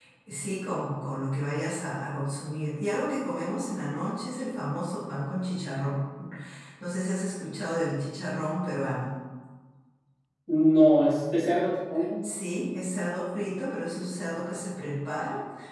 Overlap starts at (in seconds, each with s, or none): none